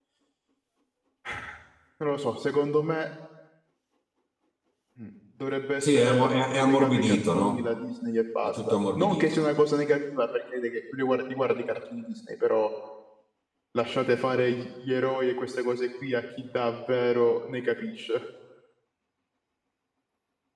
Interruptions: present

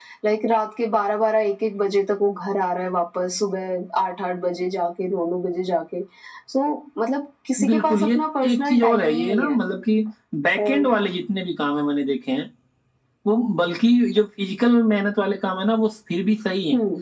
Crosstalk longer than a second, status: present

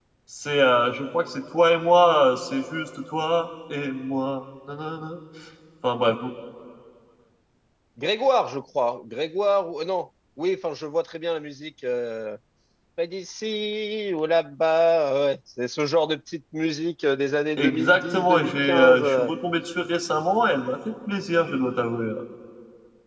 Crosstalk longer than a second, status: present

